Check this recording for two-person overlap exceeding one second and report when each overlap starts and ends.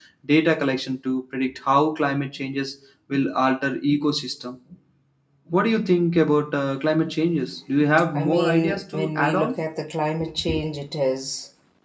8.2-9.5

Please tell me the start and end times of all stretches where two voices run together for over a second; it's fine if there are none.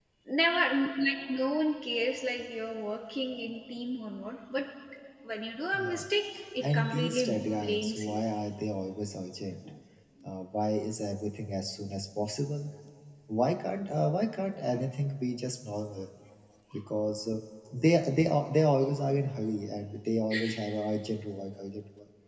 6.6-8.2

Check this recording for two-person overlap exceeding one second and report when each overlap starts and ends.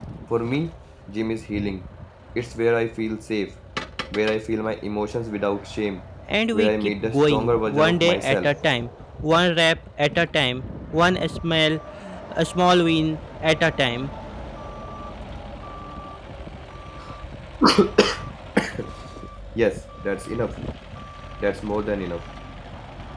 6.5-8.5

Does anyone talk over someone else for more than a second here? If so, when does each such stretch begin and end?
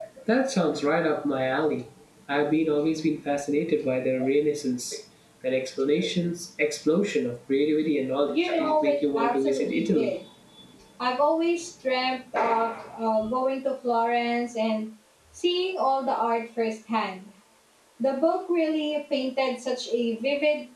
8.3-10.1

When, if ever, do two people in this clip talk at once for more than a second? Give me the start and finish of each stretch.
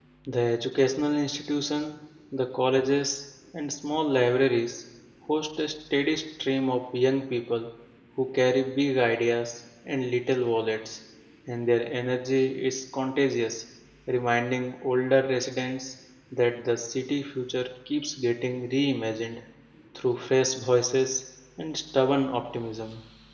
none

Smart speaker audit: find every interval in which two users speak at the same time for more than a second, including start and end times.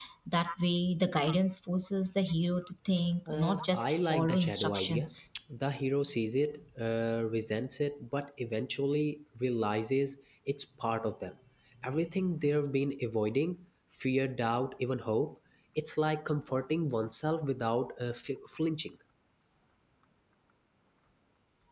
3.3-5.1

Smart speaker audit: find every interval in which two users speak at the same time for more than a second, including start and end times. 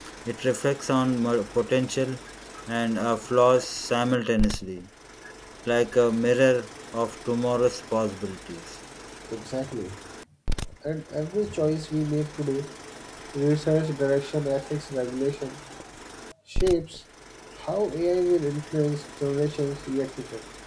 none

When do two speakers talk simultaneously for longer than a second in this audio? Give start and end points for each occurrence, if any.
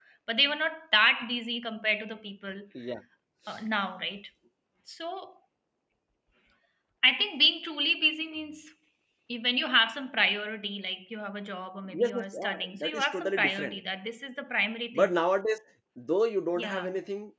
12.0-13.8

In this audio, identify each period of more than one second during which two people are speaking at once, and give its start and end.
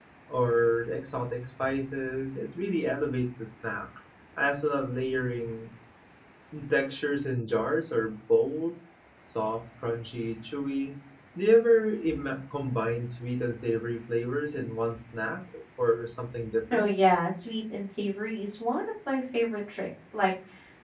none

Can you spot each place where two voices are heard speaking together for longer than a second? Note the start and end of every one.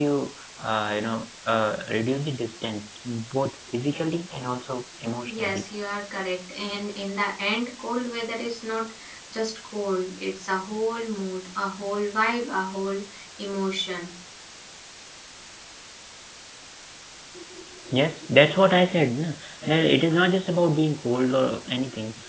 none

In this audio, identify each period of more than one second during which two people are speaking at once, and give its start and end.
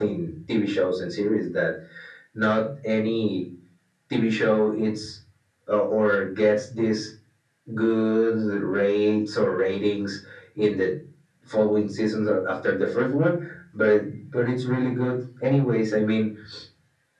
none

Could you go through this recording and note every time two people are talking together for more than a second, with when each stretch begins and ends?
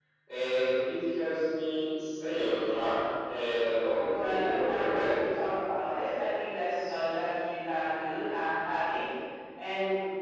4.0-5.2

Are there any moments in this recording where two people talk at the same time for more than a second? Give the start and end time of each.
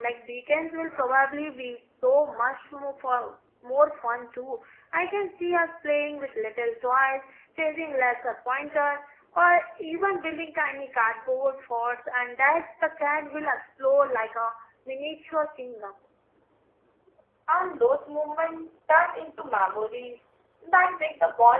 none

